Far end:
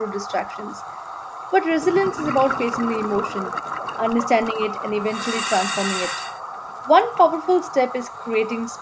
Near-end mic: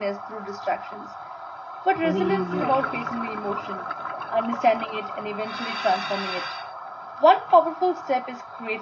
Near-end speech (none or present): present